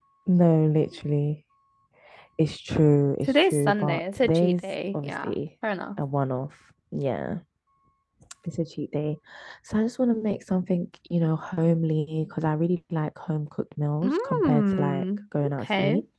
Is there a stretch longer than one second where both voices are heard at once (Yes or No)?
Yes